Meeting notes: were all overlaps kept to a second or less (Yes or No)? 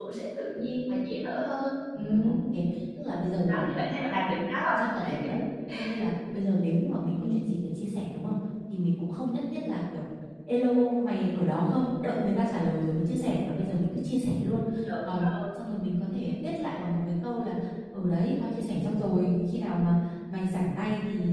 Yes